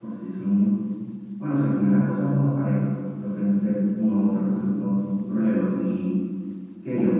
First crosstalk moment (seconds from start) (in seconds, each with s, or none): none